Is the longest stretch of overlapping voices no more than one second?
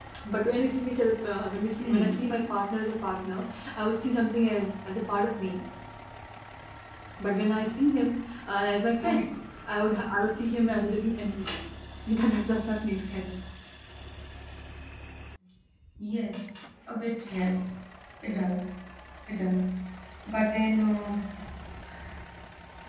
Yes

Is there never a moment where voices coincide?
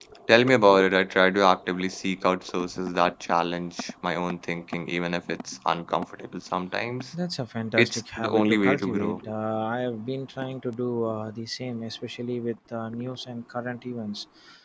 No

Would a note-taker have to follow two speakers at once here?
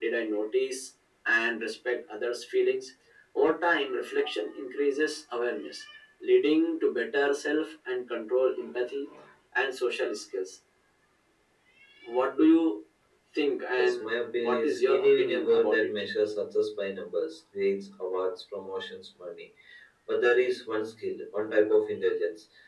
Yes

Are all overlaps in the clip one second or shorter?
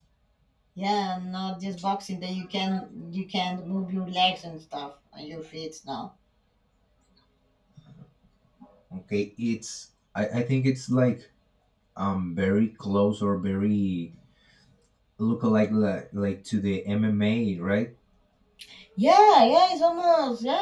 Yes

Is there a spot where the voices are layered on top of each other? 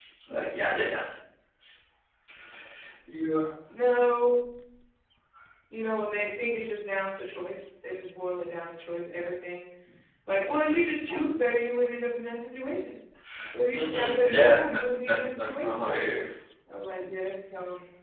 Yes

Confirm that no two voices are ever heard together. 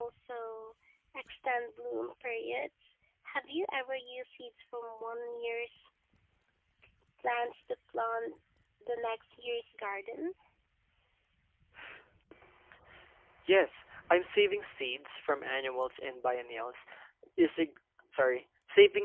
Yes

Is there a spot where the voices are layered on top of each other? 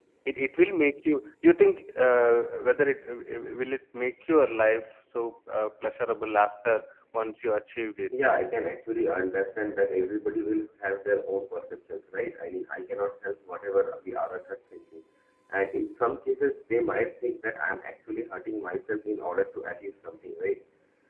No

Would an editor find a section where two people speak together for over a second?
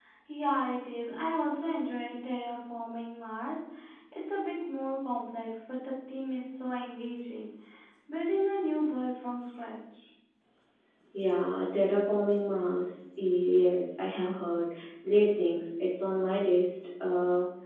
No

